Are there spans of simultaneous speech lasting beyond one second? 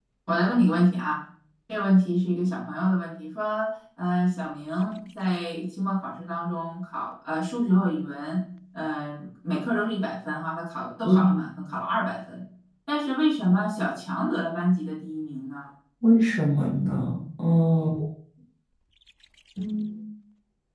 No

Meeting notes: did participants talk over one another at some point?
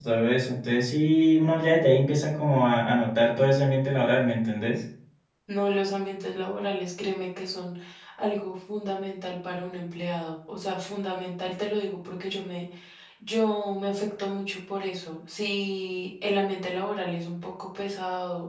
No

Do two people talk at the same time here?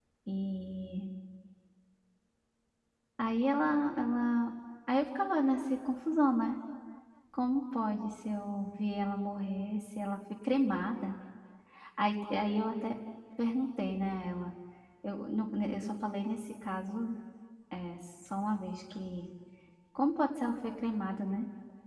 No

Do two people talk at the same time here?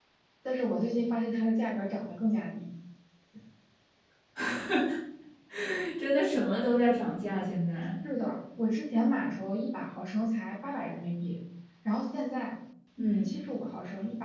No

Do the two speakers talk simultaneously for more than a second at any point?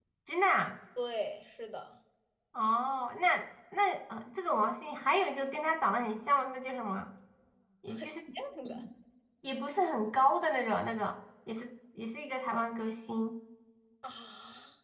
No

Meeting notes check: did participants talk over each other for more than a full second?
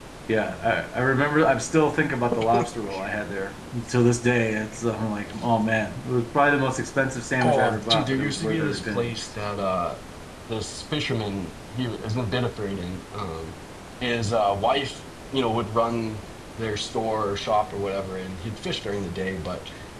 Yes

